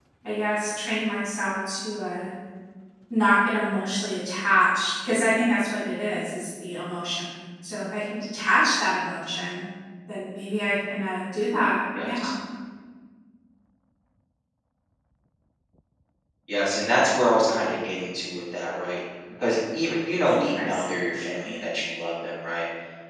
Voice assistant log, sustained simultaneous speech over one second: none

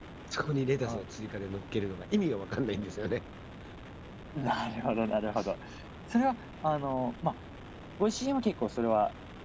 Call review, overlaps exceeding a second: none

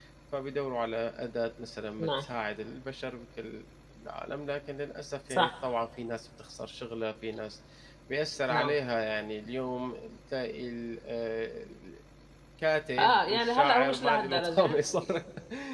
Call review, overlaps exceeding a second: present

